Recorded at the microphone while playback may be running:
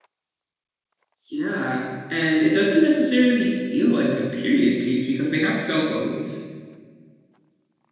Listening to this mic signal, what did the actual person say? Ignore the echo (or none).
Yeah, and it doesn't necessarily feel like a period piece because they have cell phones